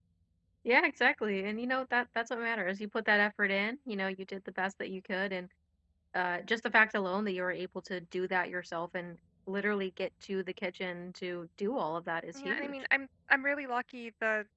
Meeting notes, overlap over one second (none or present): none